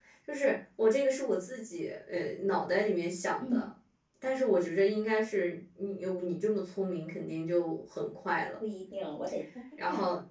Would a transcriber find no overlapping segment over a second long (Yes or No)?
Yes